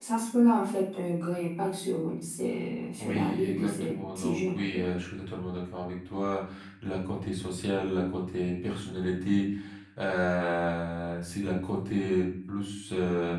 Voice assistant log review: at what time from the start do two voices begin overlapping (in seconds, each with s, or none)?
3.0 s